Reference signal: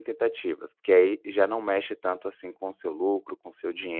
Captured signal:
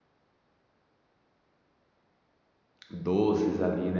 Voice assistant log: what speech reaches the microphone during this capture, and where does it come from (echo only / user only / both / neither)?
user only